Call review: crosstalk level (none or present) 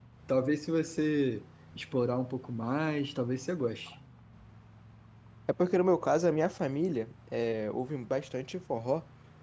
none